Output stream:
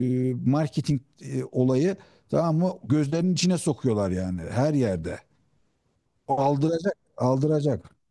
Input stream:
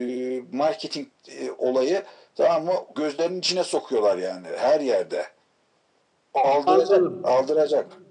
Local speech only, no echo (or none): Anladım.